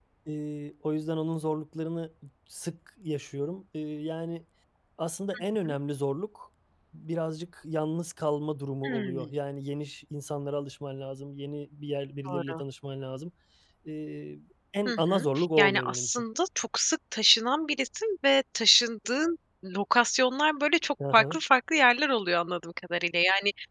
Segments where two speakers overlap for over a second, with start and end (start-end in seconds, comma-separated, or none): 14.9-16.2